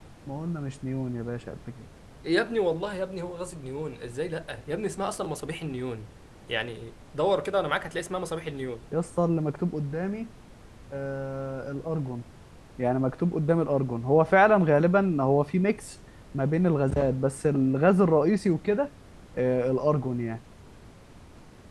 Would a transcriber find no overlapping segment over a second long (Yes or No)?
Yes